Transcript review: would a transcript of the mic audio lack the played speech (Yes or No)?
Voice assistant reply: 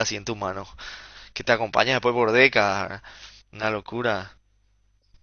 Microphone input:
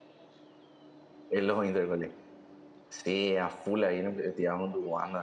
Yes